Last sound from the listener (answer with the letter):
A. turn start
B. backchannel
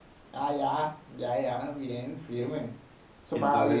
A